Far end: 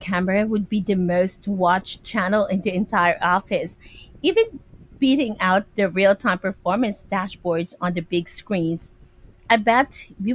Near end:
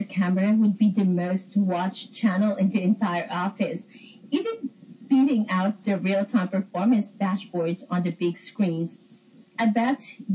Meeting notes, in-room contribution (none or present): none